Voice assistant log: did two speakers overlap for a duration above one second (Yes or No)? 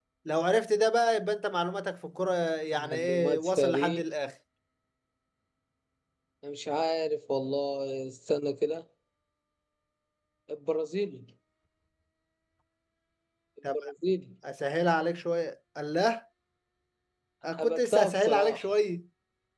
Yes